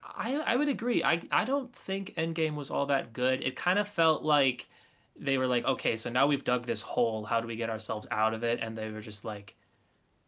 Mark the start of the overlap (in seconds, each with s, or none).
none